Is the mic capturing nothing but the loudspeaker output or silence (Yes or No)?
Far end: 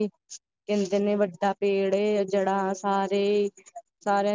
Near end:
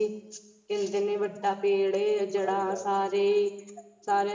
No